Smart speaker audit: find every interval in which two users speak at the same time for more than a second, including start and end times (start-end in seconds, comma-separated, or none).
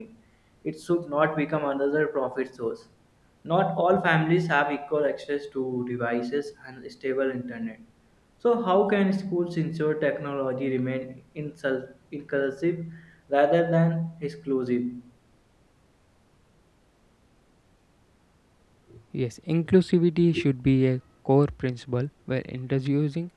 none